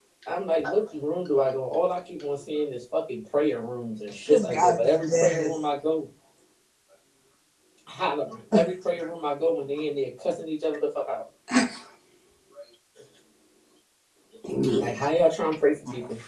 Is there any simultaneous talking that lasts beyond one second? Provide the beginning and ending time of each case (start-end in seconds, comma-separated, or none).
4.3-5.5